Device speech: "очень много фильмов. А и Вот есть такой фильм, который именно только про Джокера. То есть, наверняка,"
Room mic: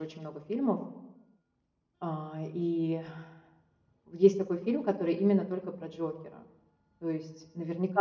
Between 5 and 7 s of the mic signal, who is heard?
echo only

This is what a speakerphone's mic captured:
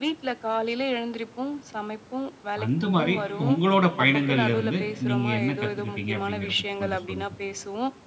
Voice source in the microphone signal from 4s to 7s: both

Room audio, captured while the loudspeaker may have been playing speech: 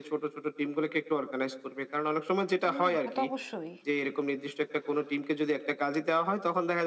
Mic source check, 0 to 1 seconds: echo only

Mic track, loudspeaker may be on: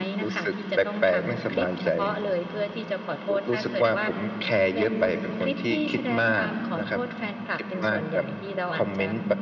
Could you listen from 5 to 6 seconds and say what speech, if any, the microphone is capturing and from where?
echo only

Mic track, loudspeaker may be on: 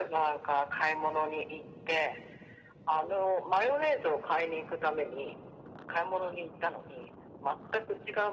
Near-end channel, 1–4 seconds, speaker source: echo only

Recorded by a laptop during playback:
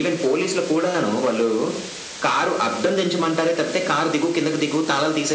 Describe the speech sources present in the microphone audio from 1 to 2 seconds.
echo only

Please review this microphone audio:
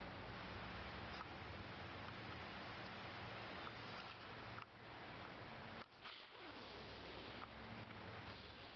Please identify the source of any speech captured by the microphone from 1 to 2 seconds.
neither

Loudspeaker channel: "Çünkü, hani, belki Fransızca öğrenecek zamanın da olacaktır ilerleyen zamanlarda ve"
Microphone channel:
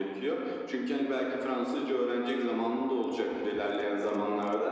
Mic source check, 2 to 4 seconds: echo only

